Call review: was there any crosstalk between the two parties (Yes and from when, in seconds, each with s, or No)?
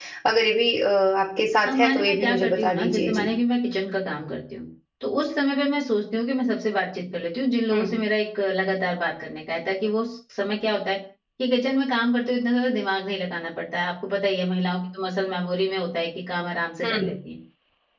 Yes, from 1.6 s